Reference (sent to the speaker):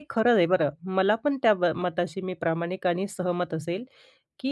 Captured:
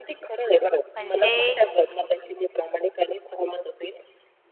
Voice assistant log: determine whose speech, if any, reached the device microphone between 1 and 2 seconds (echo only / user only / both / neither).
both